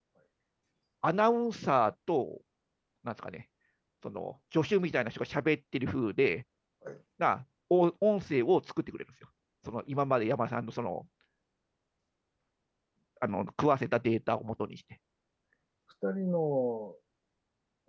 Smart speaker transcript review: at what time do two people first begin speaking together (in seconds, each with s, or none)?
none